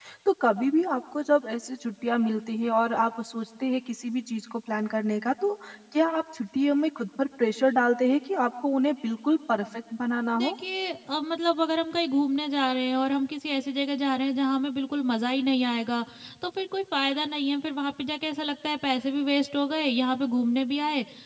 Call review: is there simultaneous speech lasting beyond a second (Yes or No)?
No